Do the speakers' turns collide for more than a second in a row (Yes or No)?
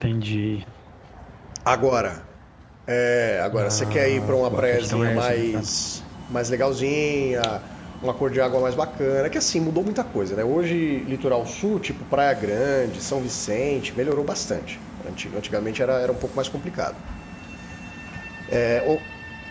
Yes